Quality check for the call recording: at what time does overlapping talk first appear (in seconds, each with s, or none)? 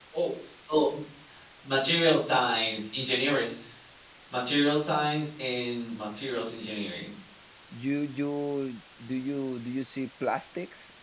none